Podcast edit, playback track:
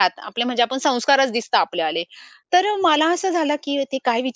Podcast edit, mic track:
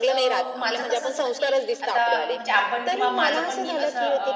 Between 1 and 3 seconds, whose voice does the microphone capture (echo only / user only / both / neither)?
both